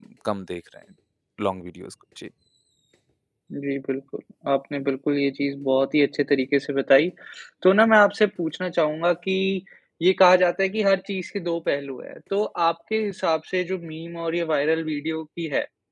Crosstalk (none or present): none